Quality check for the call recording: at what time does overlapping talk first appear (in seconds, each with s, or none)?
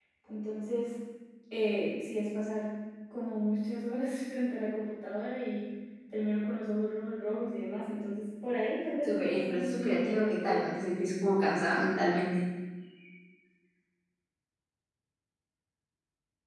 9.1 s